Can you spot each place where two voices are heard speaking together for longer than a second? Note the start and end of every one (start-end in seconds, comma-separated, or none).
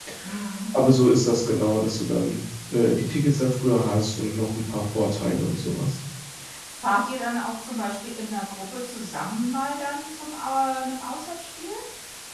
none